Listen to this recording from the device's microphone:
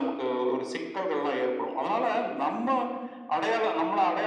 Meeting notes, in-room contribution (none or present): none